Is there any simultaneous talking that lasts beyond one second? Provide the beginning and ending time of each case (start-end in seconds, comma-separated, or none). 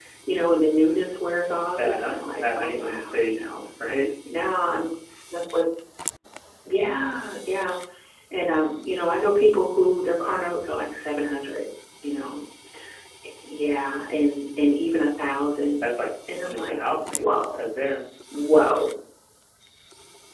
1.8-3.5, 16.4-17.7